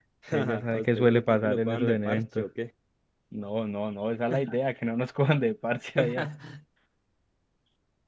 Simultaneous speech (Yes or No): Yes